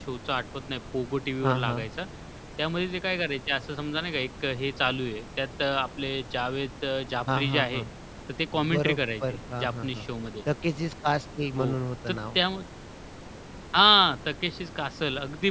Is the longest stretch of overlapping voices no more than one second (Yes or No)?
No